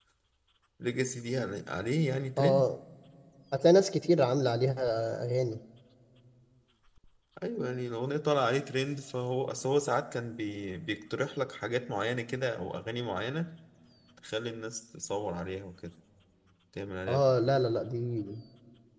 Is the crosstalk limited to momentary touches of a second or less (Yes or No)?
Yes